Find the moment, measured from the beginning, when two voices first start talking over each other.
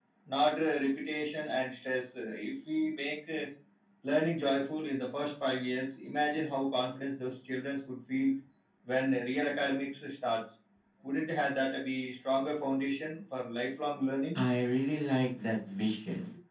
none

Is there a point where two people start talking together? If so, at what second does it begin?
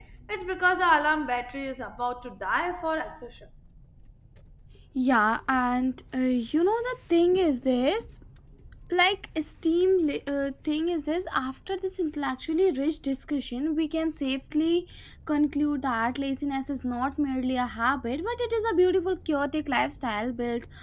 none

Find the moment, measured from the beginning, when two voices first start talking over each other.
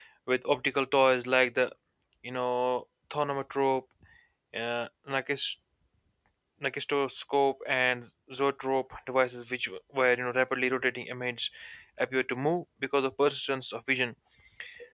none

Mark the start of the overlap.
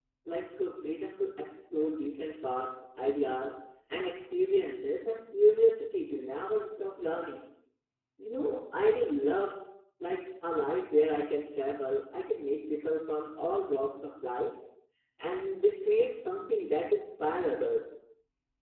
none

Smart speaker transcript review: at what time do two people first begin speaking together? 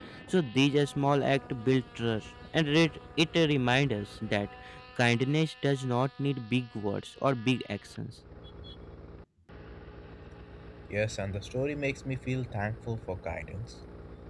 none

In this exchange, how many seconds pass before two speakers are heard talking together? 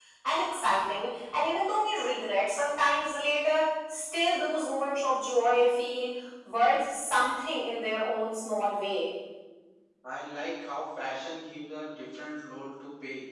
none

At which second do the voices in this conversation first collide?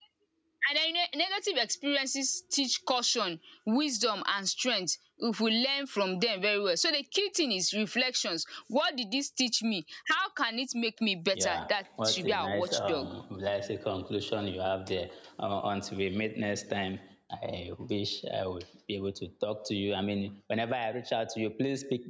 11.3 s

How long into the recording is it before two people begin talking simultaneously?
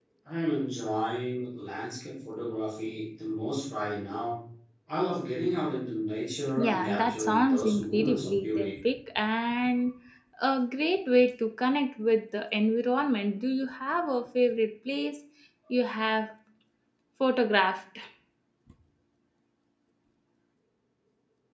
6.6 s

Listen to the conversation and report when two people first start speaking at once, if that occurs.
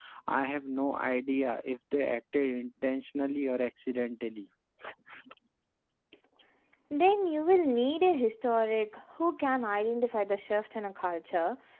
none

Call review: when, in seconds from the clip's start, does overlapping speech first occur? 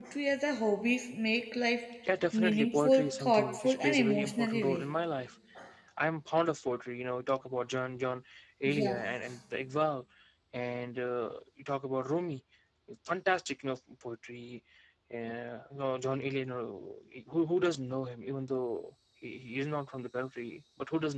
2.3 s

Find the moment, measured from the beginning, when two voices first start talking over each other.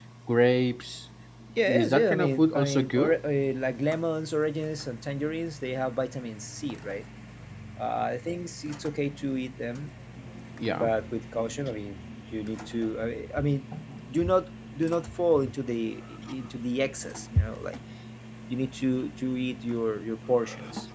1.8 s

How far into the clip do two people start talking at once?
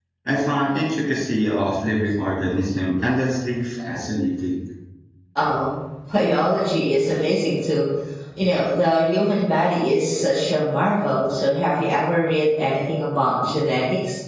none

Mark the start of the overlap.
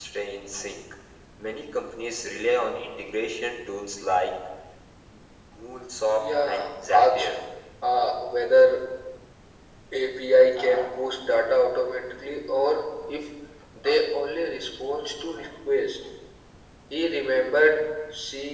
6.1 s

